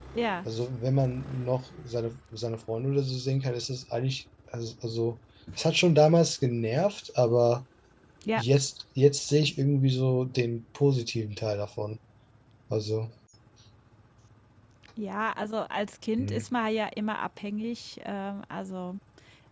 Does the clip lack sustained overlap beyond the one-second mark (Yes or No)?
Yes